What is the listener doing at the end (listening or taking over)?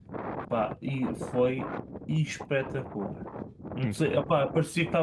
listening